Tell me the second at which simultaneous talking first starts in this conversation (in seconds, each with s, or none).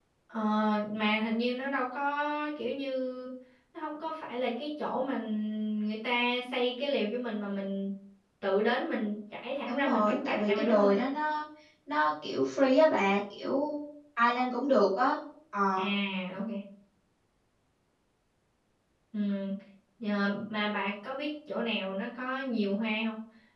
9.7 s